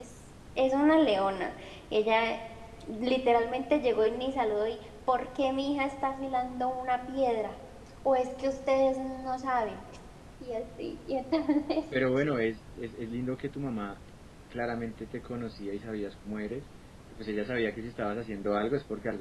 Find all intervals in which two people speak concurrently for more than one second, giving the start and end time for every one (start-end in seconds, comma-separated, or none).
none